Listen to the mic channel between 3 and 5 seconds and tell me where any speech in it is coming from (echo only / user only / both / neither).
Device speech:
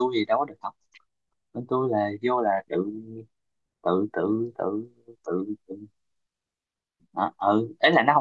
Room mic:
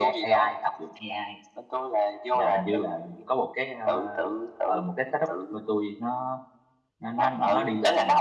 both